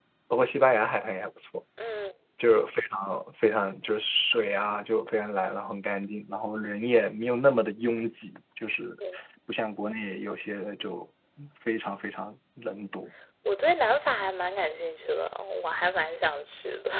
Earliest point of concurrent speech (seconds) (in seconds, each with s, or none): none